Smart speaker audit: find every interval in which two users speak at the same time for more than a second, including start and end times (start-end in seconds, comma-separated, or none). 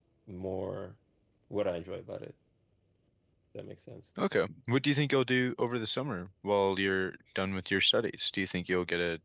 none